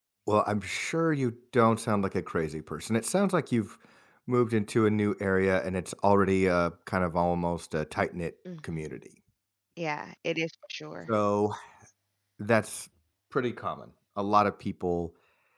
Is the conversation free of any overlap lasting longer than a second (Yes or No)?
Yes